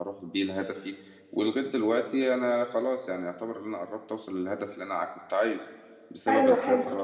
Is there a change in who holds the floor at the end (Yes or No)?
No